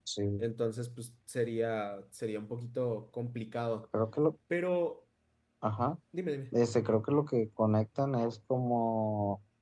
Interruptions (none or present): none